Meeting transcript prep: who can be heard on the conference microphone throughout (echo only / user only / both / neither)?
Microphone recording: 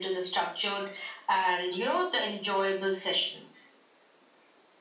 echo only